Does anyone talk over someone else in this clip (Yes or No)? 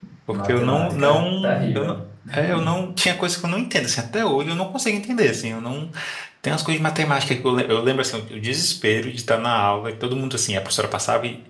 Yes